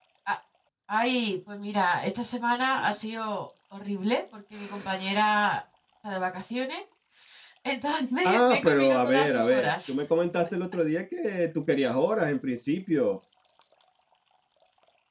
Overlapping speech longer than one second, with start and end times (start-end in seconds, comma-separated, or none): 8.2-9.9